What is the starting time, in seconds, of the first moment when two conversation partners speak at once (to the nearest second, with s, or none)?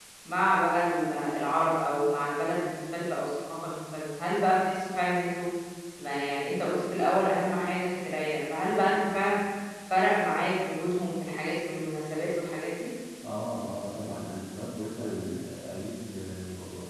none